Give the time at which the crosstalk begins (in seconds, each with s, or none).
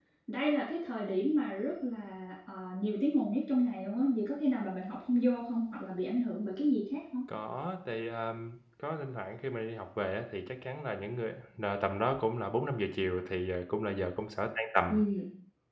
none